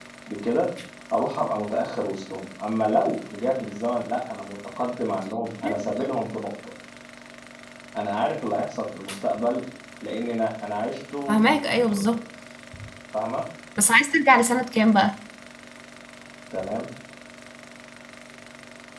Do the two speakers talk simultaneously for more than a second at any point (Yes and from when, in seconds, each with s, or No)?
No